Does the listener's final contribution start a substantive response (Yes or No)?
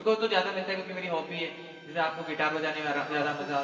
Yes